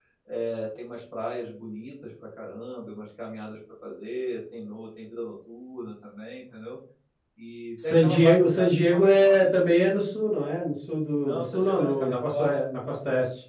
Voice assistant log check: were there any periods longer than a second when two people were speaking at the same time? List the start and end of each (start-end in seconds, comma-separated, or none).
7.8-9.5, 11.2-12.6